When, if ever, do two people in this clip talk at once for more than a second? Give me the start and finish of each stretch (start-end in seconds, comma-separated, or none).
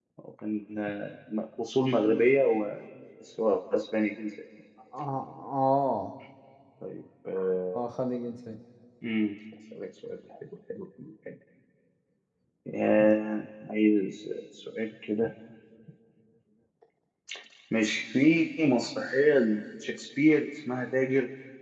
none